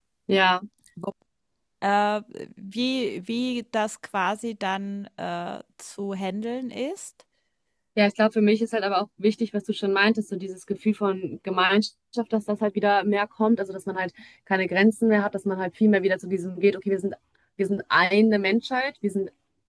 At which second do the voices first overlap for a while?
none

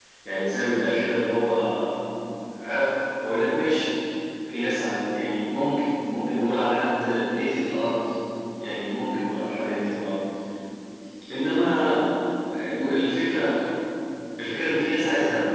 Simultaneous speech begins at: none

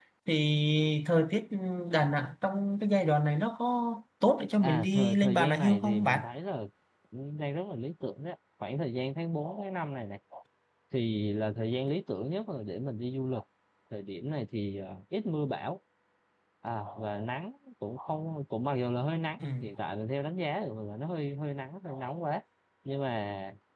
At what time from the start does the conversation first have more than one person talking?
5 s

